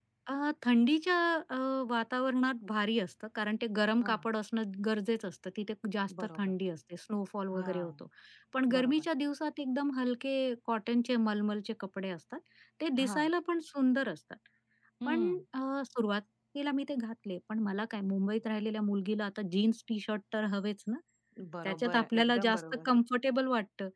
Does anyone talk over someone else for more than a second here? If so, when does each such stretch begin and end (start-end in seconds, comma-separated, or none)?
21.6-22.9